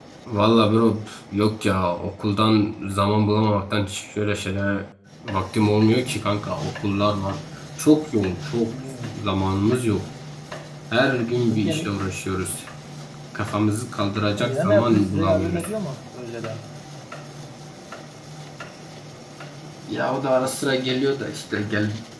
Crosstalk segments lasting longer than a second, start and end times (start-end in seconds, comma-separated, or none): 14.4-15.7